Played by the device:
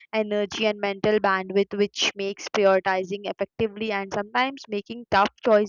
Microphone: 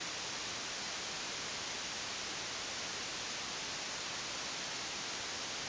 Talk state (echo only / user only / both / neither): neither